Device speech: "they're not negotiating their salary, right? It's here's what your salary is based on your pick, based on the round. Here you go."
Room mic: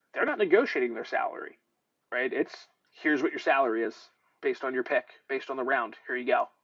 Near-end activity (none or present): none